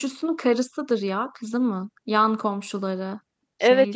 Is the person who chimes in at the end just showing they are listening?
No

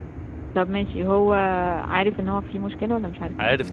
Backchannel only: No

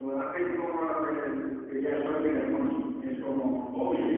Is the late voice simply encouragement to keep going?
Yes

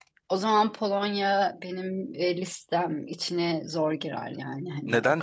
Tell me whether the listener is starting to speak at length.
Yes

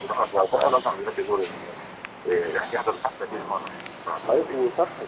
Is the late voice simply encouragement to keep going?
No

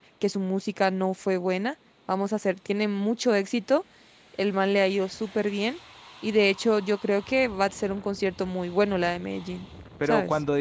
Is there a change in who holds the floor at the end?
Yes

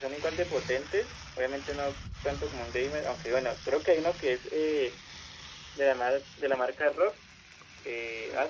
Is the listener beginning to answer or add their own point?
Yes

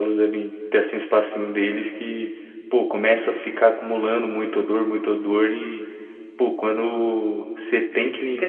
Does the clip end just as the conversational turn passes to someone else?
Yes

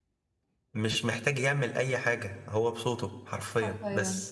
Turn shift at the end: Yes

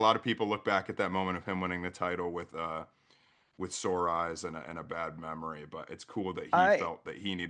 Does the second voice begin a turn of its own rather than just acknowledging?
No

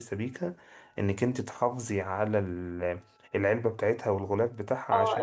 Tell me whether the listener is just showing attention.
No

